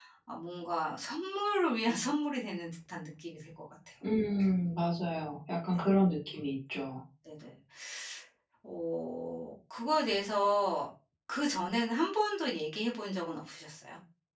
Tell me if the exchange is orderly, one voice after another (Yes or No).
Yes